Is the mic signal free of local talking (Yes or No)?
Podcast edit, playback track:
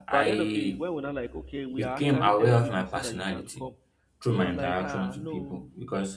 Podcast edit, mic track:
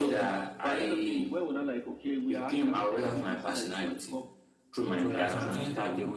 No